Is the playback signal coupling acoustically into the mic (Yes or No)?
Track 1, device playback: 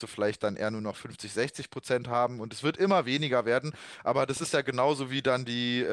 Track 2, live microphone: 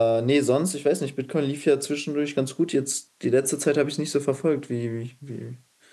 No